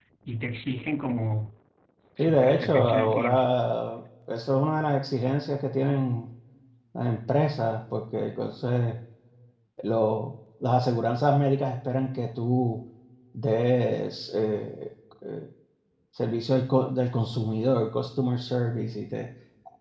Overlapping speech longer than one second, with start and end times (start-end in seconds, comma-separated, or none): 2.2-3.5